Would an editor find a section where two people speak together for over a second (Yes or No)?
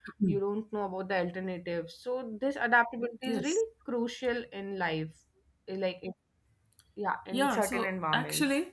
Yes